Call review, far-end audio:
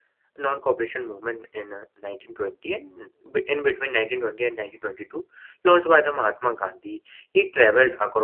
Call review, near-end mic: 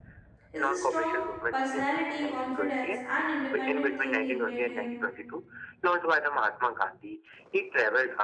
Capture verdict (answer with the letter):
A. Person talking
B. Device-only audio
A